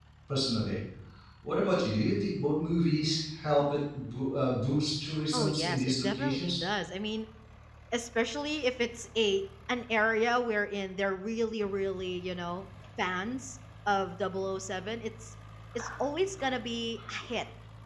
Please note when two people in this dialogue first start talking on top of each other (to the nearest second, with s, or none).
5 s